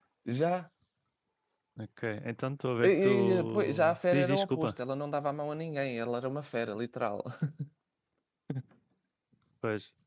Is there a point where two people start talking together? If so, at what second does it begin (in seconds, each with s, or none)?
2.8 s